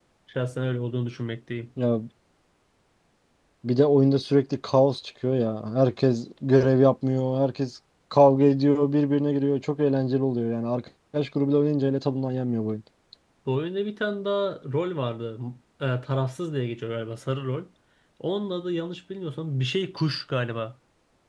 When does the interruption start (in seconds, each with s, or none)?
none